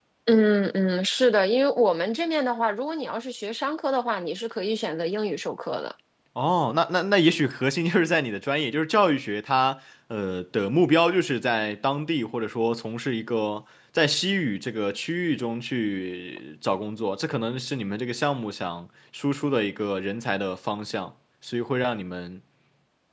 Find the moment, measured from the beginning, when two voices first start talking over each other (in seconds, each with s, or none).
none